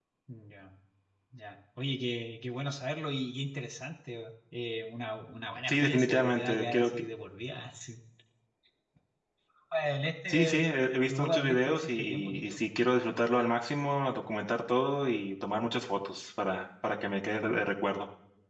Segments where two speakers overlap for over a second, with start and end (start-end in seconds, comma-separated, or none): 5.7-6.9, 11.1-12.6